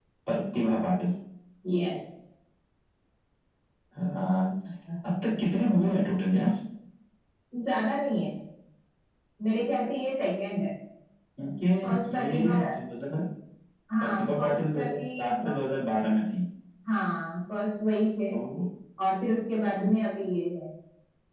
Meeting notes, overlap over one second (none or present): present